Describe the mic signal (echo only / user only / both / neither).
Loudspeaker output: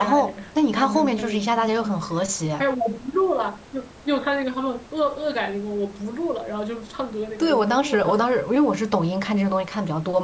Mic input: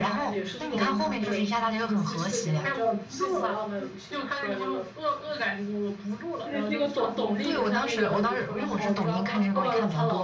both